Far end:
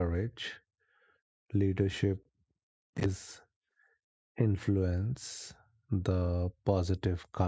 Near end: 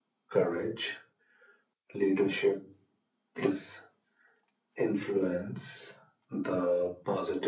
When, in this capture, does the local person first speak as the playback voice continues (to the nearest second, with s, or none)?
none